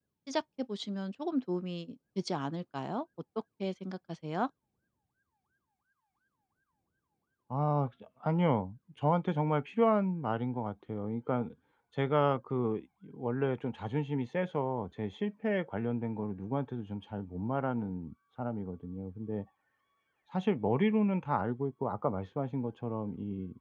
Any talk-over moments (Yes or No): No